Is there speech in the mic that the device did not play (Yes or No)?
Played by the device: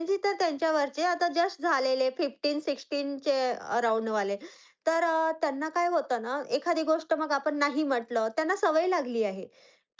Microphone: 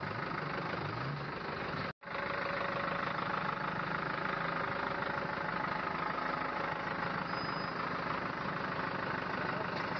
No